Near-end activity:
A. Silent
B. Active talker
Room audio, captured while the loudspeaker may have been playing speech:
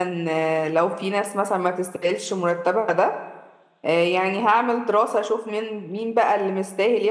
B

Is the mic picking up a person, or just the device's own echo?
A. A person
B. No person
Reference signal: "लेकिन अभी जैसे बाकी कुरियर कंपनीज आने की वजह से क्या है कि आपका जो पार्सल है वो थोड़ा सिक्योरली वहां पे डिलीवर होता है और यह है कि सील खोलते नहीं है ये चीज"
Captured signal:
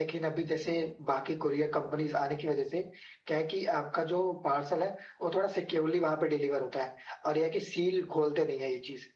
B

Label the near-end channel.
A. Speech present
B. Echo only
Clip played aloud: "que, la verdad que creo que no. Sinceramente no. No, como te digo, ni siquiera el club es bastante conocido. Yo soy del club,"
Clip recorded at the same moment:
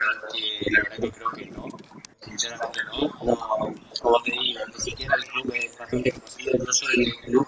B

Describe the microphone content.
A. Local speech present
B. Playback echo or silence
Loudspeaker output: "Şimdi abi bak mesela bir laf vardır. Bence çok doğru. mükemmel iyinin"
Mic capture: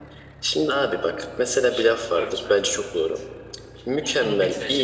A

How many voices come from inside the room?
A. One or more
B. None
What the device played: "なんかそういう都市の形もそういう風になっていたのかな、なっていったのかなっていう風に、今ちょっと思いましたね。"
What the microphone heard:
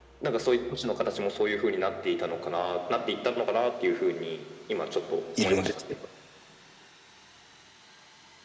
A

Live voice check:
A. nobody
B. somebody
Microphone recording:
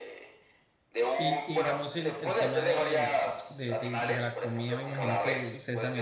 B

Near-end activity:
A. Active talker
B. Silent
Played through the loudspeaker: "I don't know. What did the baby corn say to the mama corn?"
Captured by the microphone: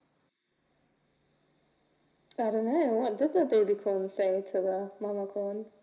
B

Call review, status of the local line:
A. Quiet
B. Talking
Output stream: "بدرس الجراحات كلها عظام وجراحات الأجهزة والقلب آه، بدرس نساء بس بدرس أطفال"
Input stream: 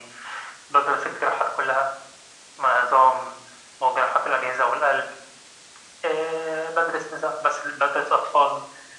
A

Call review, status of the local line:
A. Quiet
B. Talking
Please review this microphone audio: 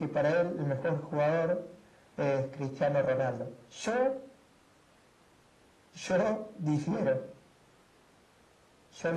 A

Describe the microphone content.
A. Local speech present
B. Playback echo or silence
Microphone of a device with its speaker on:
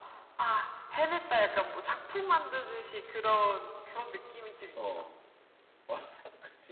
A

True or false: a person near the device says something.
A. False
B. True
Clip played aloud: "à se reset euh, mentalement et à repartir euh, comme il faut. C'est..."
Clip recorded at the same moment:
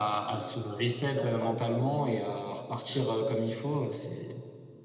B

